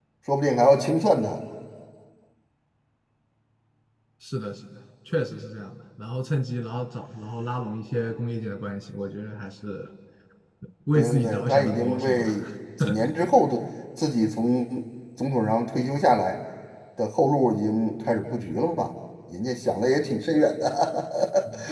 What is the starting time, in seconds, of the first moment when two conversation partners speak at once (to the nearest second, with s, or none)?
11 s